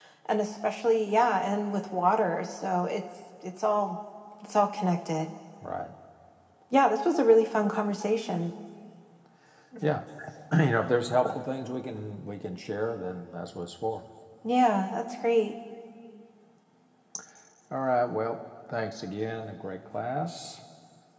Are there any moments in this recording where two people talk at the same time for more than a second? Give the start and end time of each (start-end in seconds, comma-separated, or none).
none